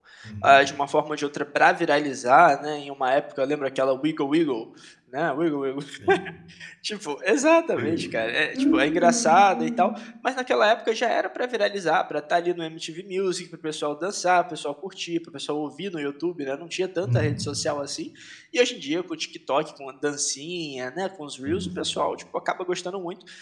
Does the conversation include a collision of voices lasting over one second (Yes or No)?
Yes